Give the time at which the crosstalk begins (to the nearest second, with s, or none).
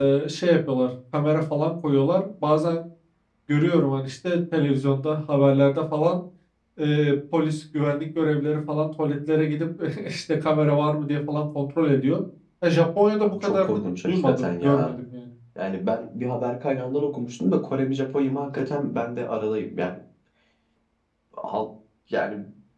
13 s